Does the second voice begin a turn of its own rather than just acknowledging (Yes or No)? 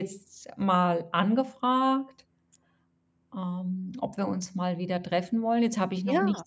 No